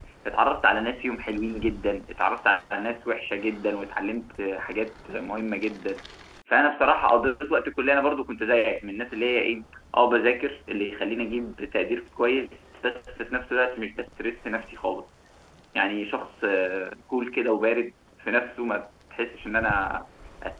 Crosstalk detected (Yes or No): No